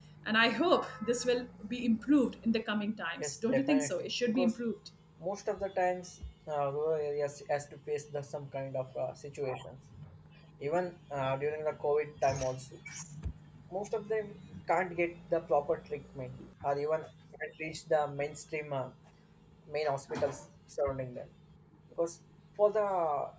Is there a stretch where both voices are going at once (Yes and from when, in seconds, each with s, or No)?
Yes, from 3.2 s